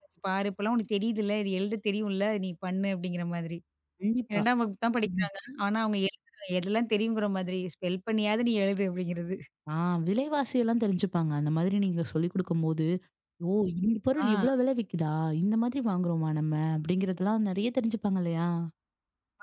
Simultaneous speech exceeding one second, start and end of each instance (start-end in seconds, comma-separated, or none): none